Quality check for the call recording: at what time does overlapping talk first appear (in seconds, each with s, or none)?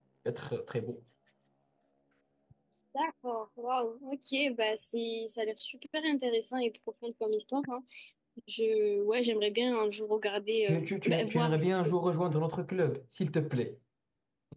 10.6 s